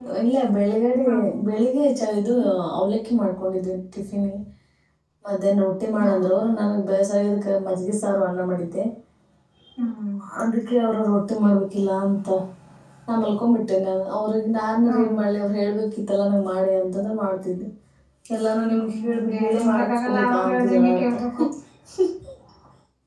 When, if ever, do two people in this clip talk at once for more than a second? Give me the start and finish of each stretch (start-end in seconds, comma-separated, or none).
18.7-21.2